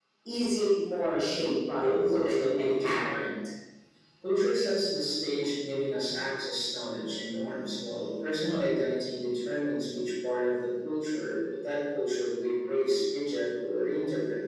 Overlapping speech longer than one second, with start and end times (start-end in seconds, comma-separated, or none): 1.2-3.2